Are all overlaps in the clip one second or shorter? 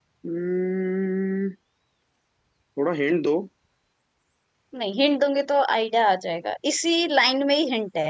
Yes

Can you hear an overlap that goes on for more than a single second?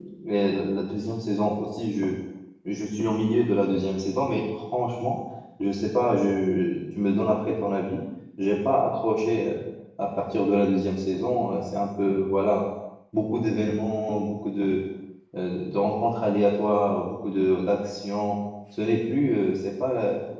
No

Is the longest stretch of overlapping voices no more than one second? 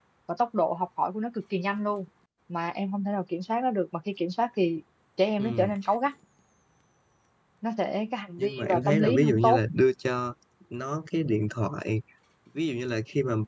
No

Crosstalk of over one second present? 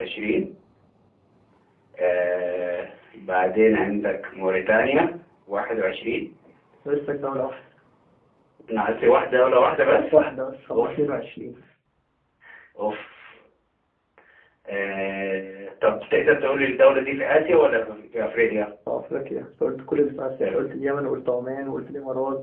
No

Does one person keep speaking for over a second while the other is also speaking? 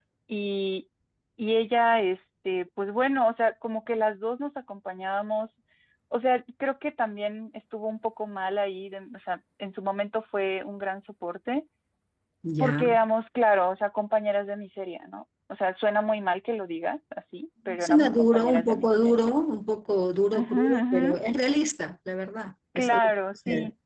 Yes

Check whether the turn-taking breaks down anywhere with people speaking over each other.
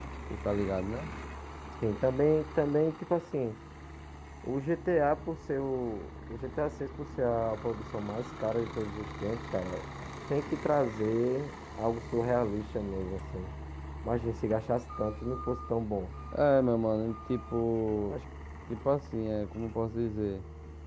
No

